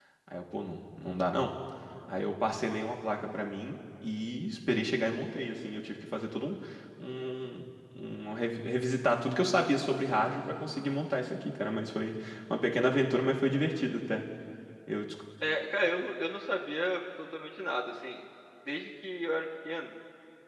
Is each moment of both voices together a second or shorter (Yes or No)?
Yes